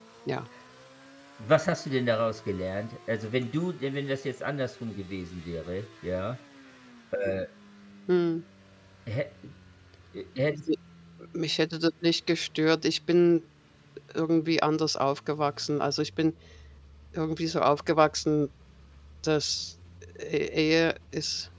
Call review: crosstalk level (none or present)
none